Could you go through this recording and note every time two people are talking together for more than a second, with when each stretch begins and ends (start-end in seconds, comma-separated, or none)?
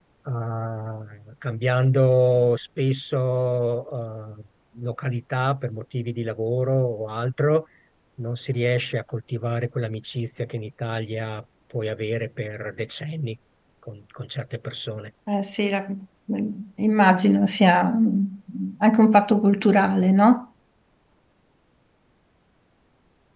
none